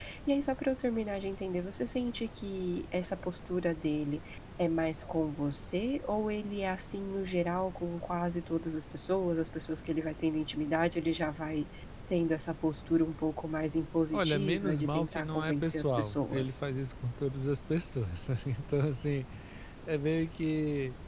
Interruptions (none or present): present